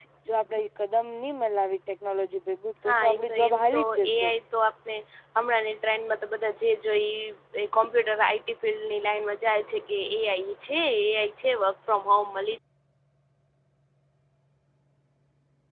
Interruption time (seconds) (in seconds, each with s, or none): 2.9 s